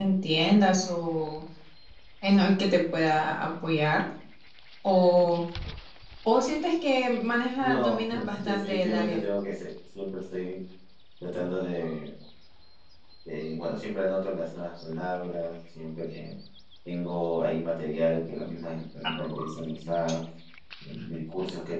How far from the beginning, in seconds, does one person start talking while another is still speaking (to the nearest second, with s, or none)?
8 s